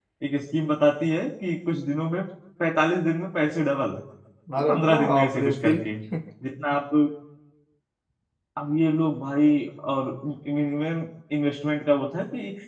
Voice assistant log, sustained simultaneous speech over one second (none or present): present